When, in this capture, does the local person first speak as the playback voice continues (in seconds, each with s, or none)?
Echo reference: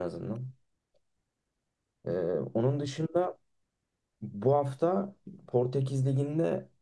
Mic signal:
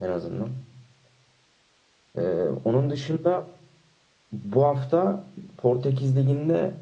none